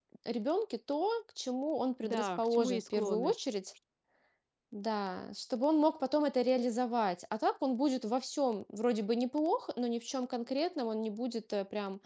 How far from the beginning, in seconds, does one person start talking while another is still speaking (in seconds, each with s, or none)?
2.0 s